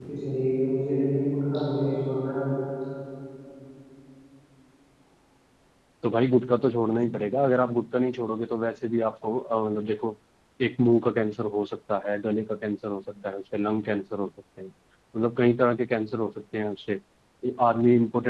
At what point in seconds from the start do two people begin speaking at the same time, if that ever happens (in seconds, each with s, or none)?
none